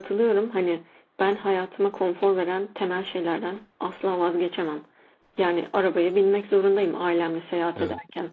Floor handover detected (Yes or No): No